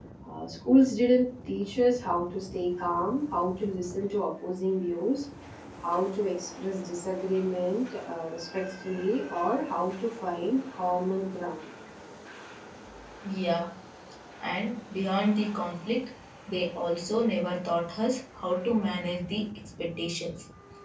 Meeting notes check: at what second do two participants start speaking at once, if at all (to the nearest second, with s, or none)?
none